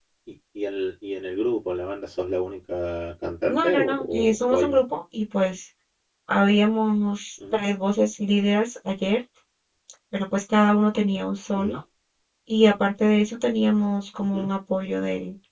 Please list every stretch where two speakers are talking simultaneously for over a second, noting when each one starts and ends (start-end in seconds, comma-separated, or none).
3.5-4.8